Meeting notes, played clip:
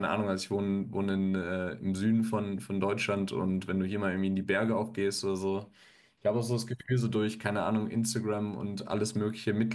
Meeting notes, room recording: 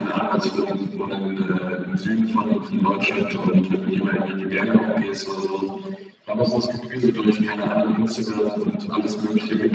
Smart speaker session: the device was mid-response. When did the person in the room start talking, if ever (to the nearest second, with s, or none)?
none